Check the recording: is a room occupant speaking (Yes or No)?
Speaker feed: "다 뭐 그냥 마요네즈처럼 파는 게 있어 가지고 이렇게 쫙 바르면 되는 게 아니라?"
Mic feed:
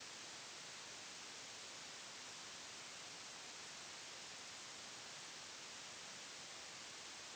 No